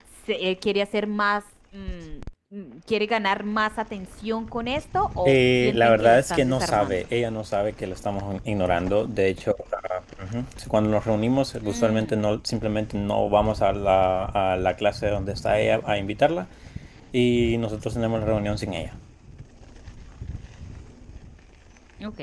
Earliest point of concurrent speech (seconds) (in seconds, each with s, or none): 5.3 s